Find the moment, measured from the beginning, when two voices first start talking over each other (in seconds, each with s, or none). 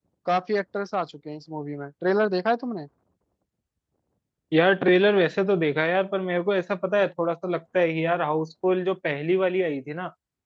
none